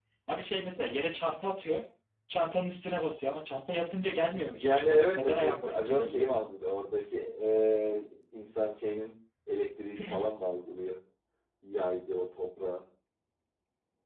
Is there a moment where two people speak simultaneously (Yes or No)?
Yes